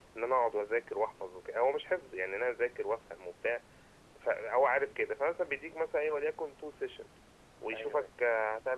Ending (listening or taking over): listening